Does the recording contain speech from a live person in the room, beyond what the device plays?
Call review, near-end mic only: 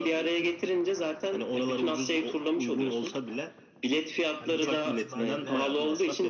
Yes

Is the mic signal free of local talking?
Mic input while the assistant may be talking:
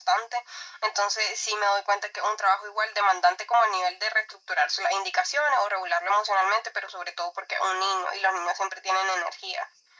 Yes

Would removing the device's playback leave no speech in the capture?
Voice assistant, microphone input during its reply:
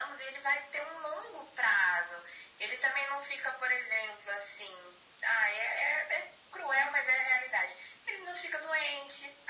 Yes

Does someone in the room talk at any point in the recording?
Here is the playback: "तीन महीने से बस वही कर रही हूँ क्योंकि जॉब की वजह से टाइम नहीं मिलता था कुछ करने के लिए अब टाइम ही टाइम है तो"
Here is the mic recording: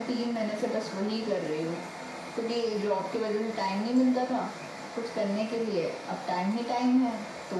No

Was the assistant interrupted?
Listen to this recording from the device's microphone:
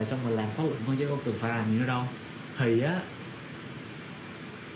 No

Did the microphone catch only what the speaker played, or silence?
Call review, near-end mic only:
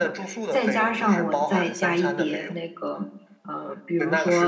No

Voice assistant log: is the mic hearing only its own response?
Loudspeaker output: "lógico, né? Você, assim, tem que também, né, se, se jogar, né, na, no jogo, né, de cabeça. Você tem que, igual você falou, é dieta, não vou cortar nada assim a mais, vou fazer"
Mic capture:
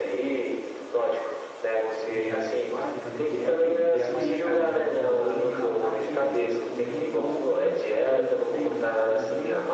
No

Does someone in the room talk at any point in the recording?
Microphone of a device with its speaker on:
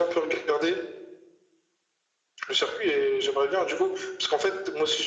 No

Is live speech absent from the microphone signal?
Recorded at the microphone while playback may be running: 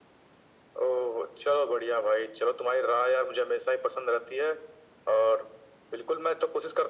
Yes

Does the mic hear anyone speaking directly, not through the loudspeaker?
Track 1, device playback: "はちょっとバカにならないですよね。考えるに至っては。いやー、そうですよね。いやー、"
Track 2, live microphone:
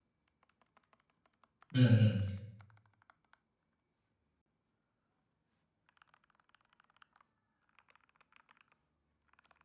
Yes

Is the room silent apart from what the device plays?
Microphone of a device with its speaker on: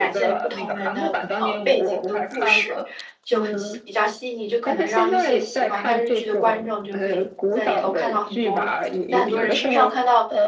No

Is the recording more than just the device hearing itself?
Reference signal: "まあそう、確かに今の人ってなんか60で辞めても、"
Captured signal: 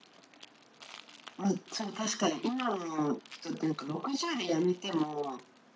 No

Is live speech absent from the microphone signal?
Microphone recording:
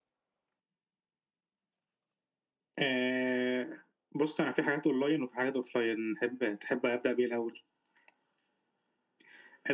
Yes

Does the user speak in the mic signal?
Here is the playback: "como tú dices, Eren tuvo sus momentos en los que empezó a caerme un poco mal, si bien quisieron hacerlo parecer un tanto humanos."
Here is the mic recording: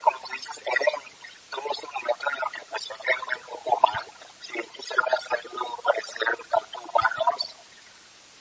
No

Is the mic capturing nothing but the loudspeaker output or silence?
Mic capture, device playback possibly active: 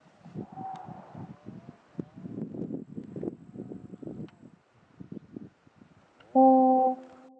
No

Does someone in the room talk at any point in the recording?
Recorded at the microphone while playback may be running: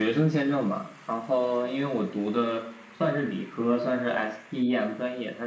No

